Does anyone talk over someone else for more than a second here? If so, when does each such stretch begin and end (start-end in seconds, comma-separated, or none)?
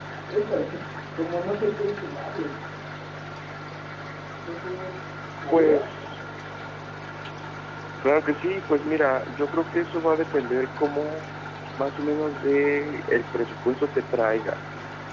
none